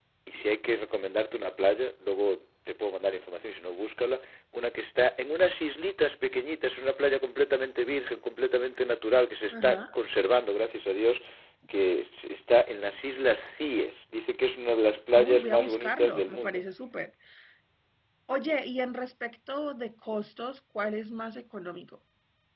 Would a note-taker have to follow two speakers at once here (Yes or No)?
Yes